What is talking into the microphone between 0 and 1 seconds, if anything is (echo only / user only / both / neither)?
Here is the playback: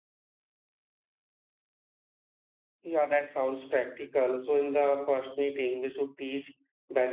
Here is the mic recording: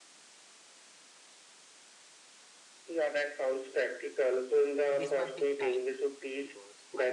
neither